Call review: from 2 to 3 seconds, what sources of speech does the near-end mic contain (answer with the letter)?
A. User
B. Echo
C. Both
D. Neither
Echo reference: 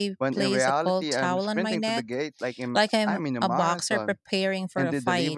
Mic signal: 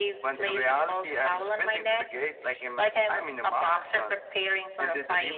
B